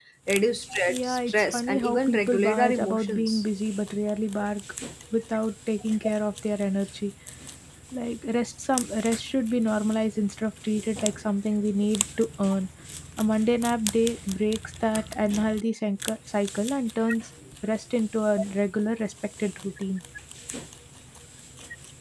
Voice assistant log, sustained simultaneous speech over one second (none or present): present